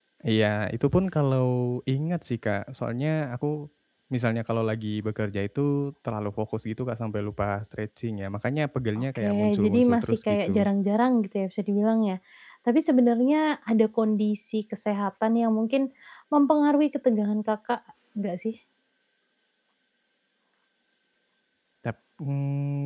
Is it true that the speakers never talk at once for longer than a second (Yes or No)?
No